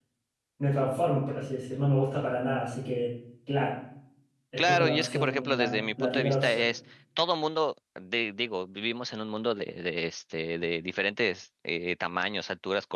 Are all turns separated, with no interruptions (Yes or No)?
No